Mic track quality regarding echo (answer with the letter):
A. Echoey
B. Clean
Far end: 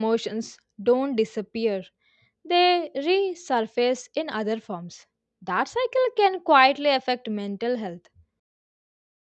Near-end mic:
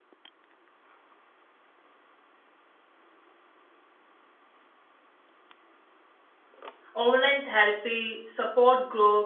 B